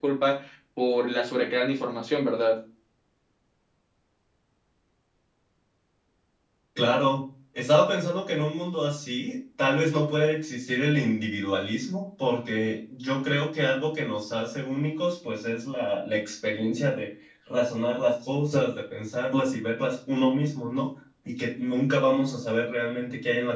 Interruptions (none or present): none